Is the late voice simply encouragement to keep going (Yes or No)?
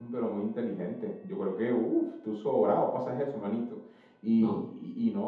Yes